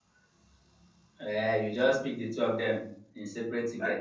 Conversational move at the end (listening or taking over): taking over